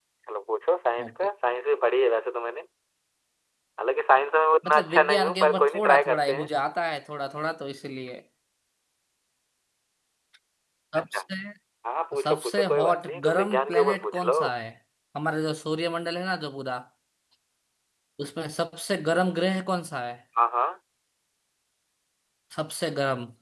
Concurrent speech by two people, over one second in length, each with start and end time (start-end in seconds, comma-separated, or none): 4.7-6.5, 12.2-14.4